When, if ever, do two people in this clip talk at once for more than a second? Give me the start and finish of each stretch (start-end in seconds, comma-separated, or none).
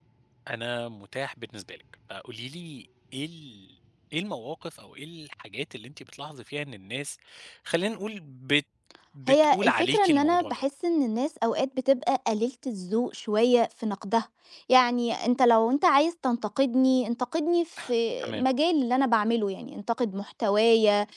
9.3-10.6